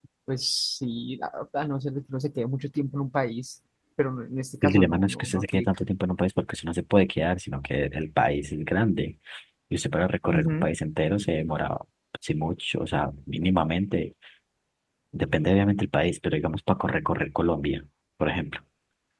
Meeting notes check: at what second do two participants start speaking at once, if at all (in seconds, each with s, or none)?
4.6 s